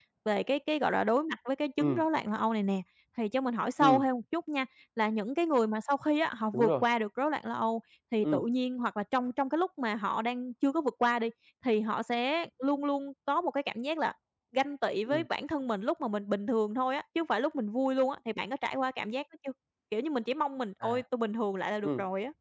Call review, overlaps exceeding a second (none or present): none